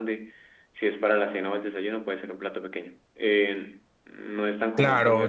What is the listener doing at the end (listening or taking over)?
taking over